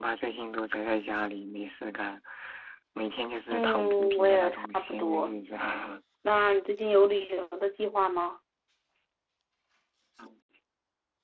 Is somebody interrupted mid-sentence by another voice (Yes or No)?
Yes